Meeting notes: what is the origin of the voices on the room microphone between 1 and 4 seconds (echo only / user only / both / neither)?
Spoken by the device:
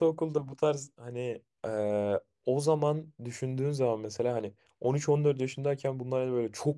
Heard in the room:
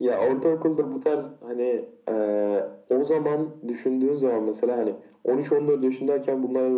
echo only